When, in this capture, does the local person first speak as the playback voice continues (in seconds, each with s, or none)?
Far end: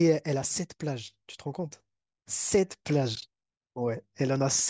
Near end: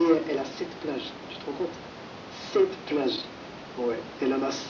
none